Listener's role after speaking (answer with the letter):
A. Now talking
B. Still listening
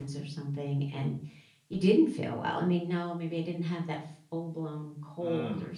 B